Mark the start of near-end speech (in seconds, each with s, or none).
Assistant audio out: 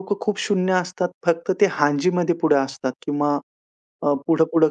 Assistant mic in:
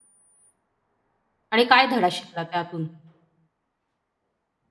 1.5 s